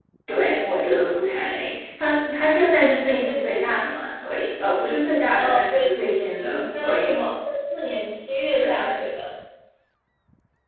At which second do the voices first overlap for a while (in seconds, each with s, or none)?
5.4 s